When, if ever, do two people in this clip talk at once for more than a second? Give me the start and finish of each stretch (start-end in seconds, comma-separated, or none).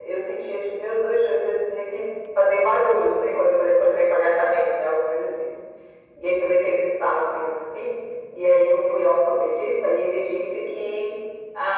none